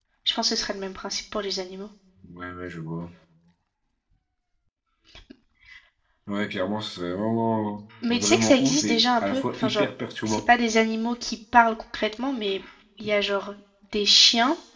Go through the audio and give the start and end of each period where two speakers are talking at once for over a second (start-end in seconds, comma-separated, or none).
8.1-9.9